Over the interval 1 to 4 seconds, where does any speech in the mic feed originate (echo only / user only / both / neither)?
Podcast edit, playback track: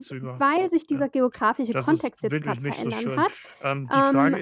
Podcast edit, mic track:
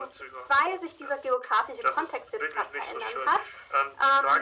echo only